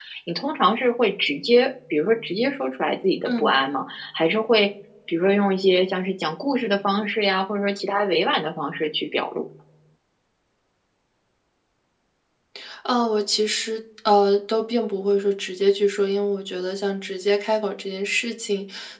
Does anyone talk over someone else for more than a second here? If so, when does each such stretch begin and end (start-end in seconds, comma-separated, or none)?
none